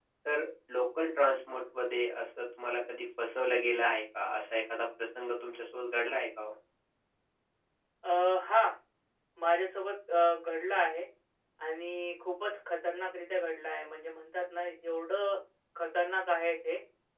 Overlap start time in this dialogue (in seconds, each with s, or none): none